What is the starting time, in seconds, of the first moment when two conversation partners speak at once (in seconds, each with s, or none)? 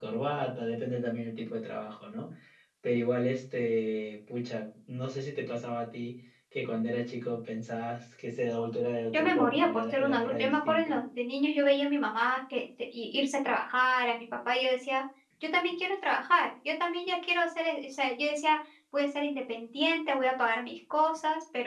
9.1 s